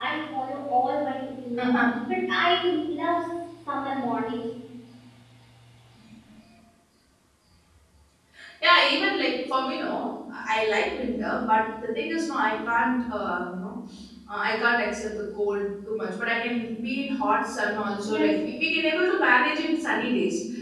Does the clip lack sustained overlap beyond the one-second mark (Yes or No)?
Yes